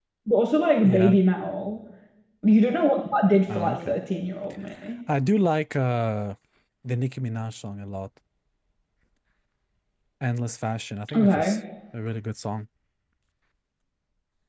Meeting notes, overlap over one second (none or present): none